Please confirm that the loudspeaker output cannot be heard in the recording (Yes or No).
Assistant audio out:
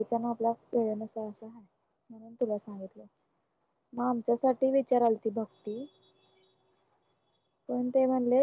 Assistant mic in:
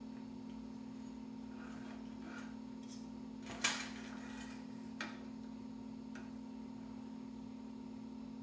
Yes